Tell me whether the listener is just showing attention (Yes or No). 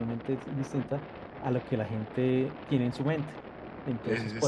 Yes